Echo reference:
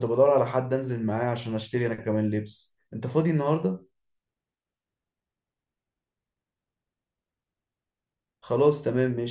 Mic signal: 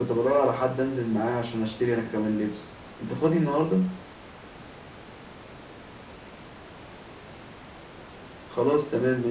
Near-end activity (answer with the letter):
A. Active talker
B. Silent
B